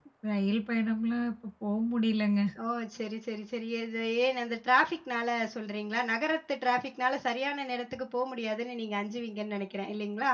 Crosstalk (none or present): none